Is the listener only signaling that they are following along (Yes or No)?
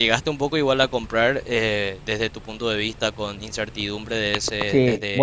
No